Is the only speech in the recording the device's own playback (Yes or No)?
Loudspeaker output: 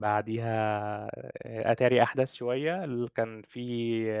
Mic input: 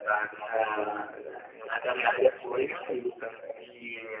Yes